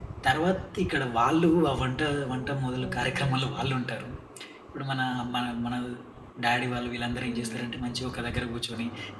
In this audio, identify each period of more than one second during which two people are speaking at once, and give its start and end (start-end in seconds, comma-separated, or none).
2.4-3.7